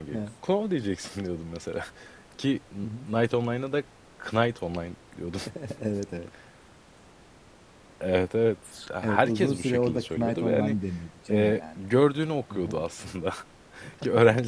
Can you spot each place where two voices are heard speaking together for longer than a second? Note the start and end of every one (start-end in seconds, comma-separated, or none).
9.0-10.8